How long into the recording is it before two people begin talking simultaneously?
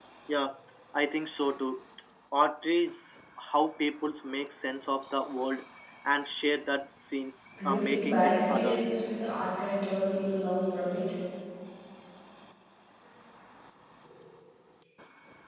8 s

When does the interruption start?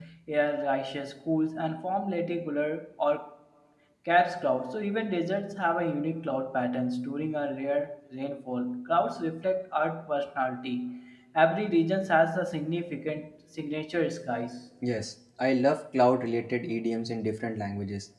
none

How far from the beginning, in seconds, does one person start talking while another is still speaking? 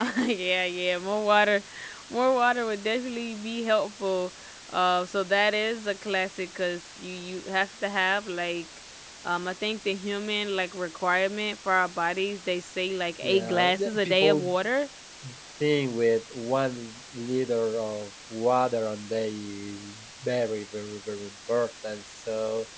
13 s

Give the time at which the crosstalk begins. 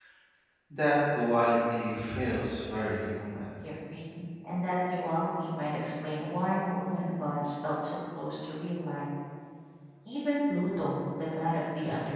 none

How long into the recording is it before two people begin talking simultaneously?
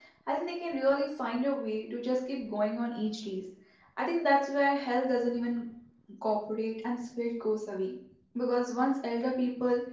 none

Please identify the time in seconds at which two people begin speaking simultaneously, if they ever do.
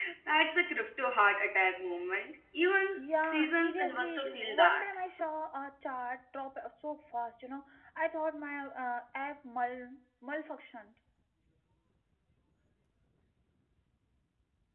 3 s

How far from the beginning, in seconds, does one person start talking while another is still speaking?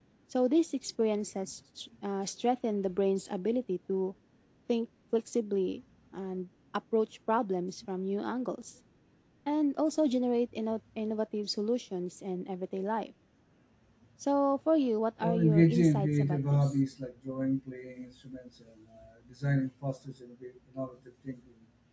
15 s

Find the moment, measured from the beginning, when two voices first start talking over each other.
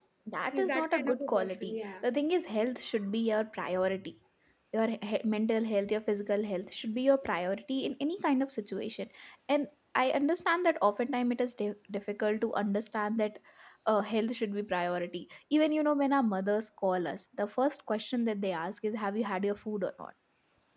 1 s

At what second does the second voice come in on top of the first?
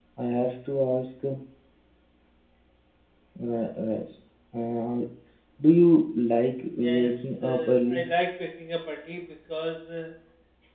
7 s

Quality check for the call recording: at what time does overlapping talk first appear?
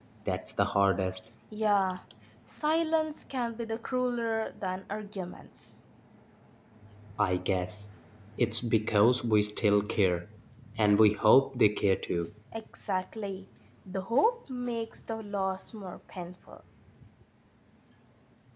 none

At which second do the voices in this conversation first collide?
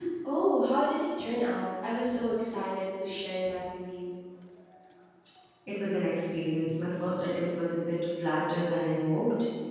none

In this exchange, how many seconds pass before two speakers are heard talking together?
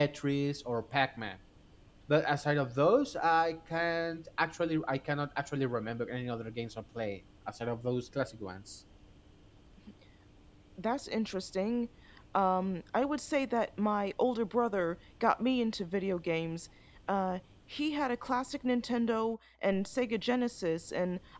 none

